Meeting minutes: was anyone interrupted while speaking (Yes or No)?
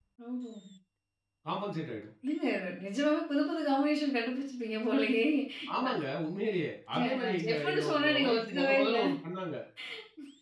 Yes